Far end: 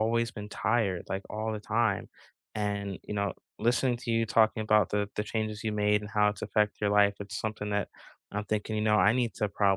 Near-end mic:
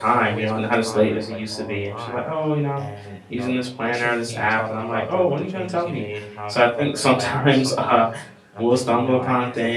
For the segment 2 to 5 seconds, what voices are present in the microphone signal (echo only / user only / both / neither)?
both